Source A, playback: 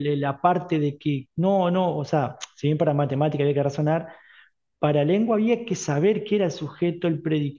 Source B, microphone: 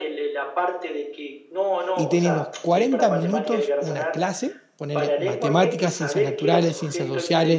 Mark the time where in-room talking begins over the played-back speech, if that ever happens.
1.9 s

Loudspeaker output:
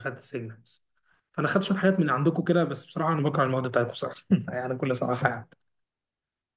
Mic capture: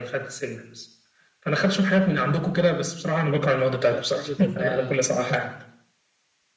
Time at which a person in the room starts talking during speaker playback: 3.6 s

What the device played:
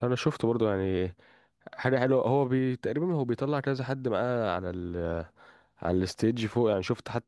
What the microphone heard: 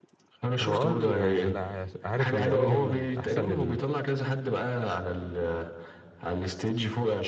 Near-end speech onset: 0.6 s

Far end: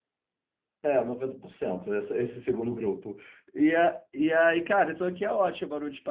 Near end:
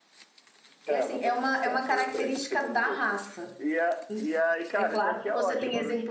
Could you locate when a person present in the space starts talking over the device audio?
0.8 s

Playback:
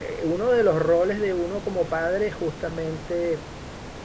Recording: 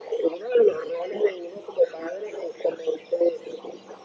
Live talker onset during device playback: none

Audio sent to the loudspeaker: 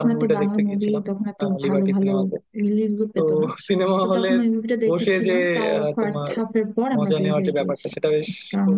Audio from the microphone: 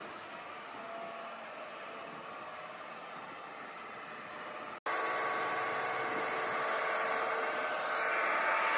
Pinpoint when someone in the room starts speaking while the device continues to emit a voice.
none

